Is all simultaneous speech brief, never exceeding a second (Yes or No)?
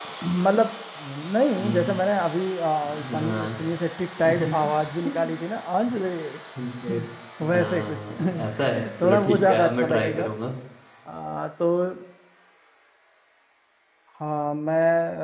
No